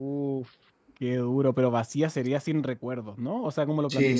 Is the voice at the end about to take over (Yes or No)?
Yes